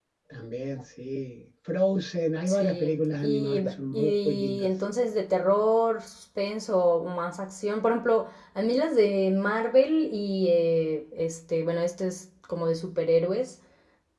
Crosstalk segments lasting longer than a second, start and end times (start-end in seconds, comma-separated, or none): 2.5-4.7